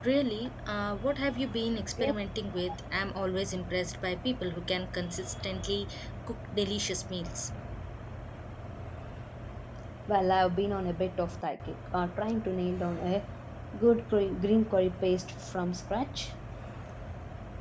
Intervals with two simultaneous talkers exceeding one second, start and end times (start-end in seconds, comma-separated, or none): none